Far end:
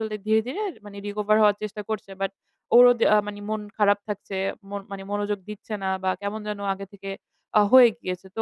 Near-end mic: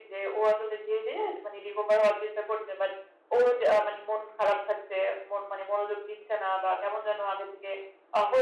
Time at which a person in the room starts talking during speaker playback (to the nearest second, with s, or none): none